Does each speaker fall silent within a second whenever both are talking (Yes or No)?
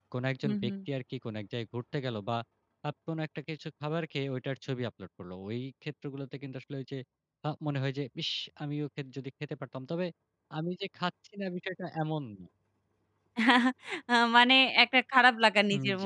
Yes